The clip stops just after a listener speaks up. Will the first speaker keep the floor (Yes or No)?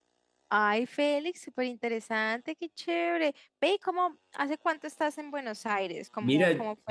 No